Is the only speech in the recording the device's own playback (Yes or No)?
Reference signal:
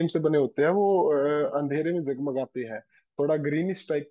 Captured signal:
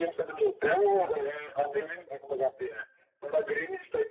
Yes